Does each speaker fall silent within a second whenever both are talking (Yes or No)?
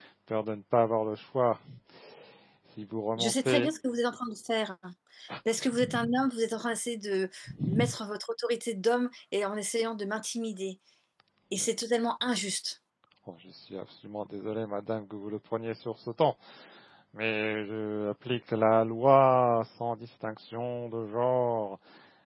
Yes